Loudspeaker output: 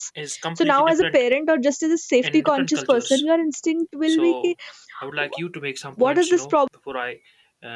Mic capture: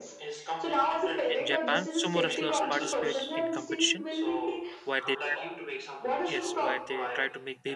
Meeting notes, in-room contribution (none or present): present